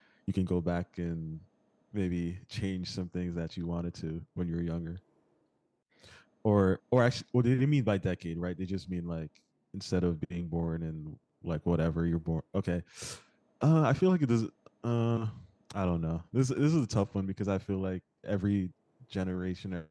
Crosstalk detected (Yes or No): No